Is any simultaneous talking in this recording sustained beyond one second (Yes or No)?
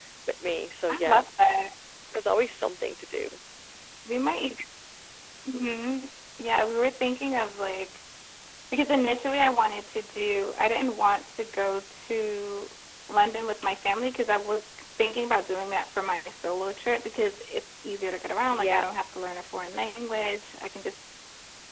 No